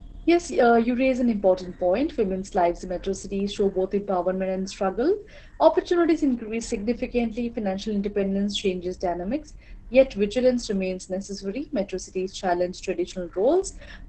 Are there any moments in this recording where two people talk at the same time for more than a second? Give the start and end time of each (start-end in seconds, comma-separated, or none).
none